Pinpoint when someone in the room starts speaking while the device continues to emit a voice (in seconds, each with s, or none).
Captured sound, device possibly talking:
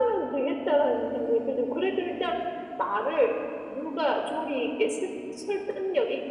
none